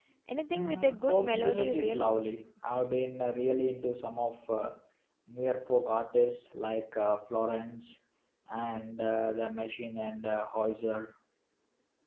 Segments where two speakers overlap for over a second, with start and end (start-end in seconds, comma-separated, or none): 0.5-2.1